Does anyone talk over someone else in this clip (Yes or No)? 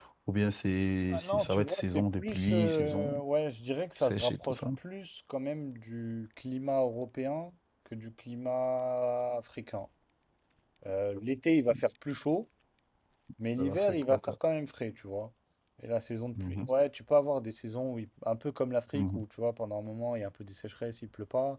Yes